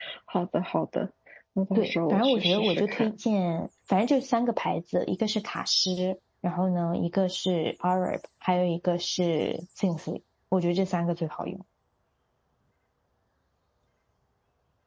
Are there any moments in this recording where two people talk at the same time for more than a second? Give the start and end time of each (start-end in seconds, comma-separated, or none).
1.8-3.1